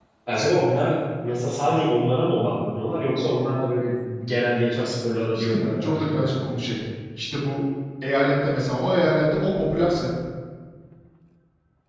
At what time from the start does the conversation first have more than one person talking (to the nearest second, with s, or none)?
5 s